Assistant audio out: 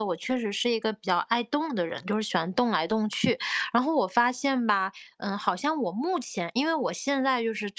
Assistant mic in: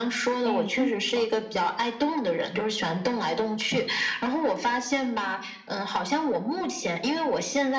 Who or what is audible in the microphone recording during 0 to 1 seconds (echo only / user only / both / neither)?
both